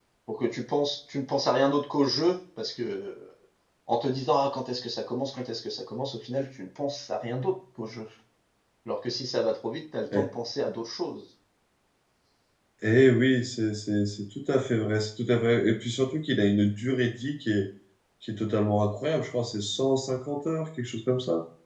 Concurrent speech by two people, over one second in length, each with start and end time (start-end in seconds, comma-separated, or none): none